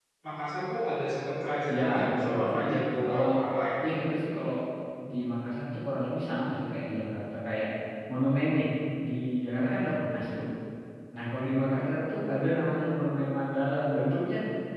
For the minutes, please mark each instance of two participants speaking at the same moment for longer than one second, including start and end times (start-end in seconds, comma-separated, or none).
1.8-3.2